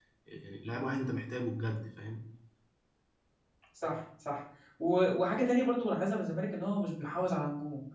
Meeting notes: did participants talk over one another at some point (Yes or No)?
No